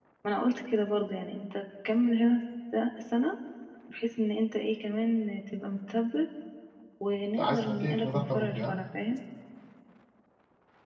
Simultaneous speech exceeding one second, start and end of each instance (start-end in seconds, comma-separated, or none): 7.4-8.8